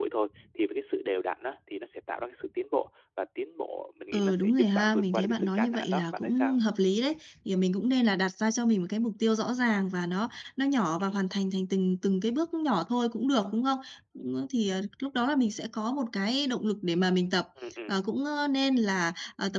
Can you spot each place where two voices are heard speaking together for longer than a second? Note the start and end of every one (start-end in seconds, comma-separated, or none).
4.1-6.6